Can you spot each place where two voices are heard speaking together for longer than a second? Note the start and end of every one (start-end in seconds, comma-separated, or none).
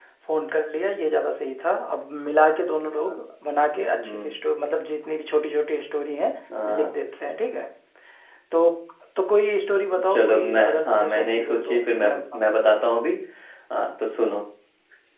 10.1-12.5